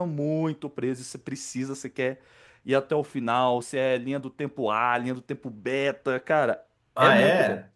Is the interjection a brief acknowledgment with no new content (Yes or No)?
No